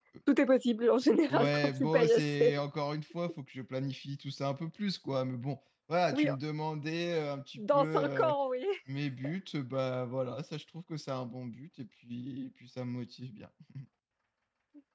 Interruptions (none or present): present